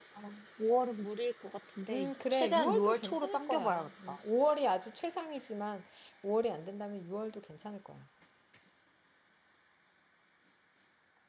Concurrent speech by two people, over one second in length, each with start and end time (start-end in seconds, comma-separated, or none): 1.9-4.2